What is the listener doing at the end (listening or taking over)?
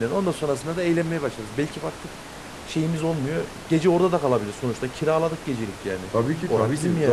taking over